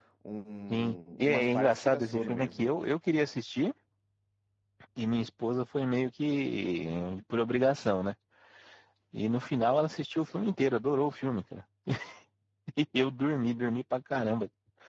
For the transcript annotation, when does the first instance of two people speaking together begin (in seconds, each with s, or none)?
0.7 s